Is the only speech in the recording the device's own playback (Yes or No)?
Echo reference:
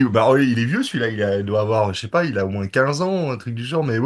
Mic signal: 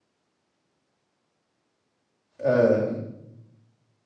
No